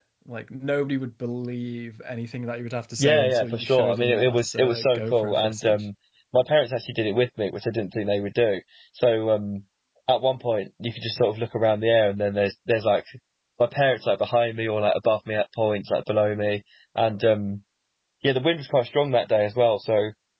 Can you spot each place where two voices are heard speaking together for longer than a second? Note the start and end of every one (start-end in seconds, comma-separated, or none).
3.0-5.9